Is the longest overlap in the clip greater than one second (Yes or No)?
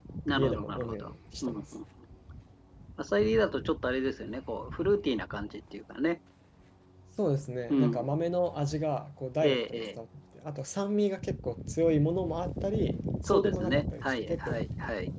Yes